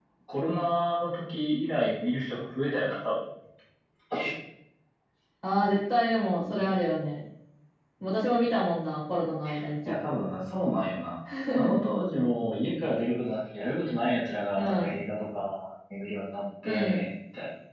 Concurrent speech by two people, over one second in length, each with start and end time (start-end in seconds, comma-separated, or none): none